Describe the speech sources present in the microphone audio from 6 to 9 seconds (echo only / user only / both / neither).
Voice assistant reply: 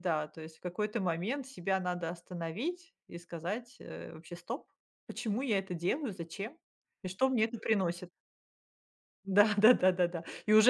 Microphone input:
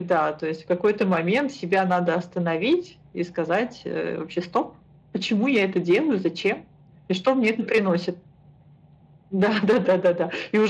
echo only